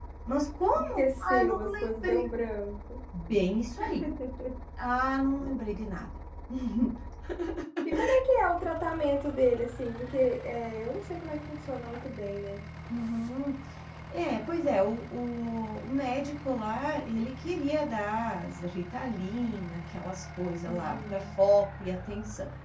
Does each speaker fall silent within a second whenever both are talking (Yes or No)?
No